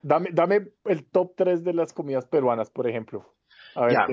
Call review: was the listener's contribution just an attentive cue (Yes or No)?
No